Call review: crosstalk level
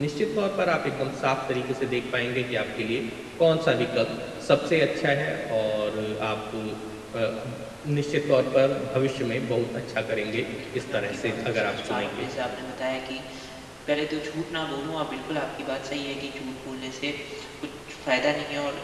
present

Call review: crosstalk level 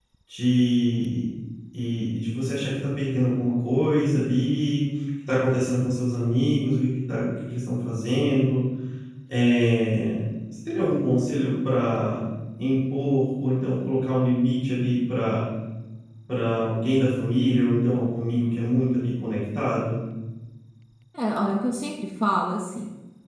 none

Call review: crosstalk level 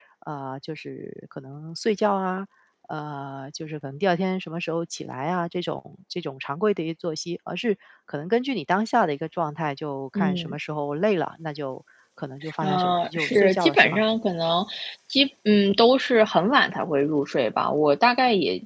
present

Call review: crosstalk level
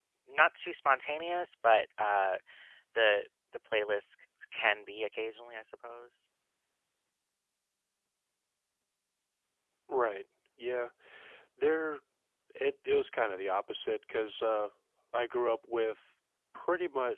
none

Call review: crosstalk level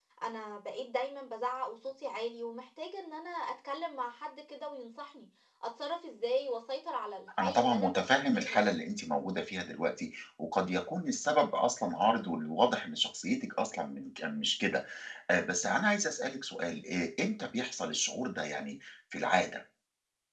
present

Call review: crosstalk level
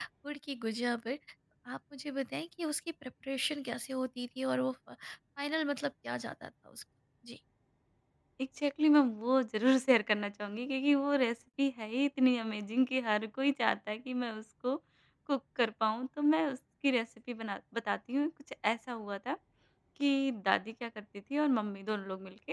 none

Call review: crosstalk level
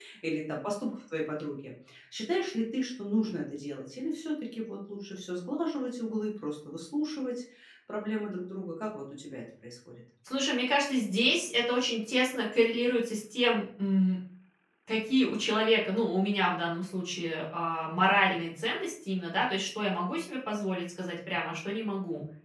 none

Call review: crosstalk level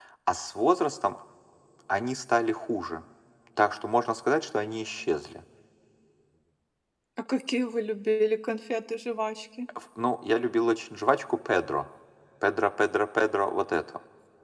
none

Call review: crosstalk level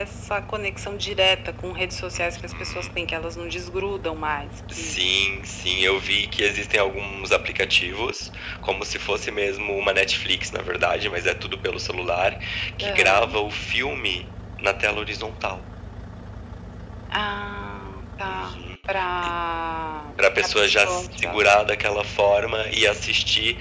present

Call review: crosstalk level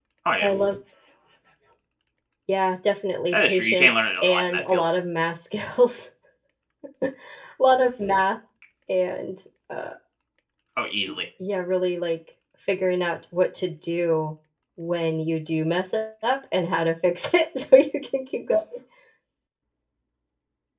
present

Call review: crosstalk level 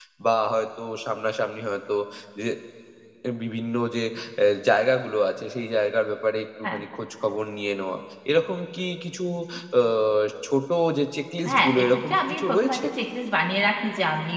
present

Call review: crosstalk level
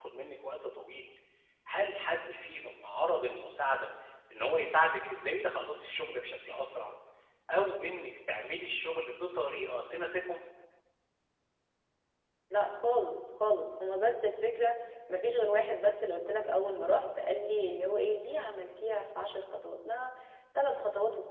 none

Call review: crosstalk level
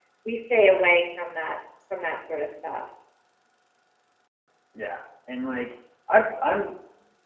none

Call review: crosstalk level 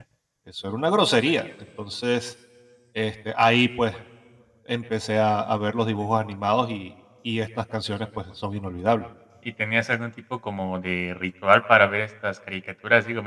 none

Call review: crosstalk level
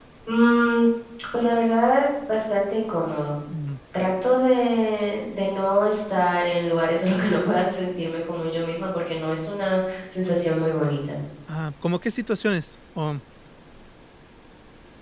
none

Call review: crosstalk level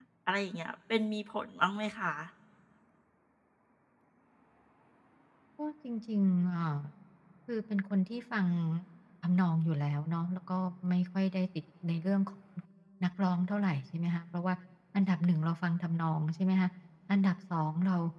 none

